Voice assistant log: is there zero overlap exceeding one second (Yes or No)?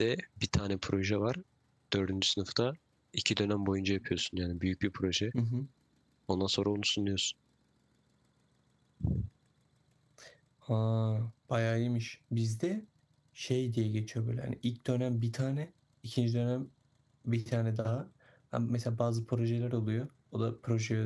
Yes